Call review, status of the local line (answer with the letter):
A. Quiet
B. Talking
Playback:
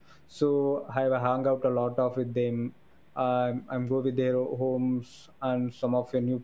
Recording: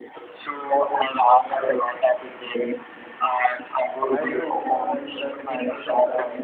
B